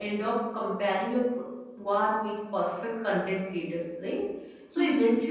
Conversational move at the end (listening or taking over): listening